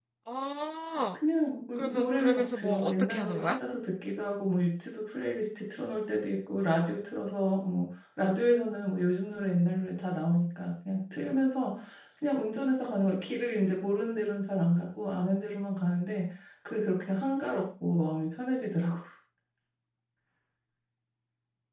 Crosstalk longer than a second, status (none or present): present